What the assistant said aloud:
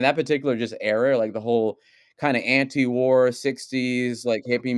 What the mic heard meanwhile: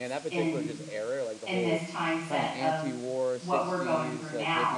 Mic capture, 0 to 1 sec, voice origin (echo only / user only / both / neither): both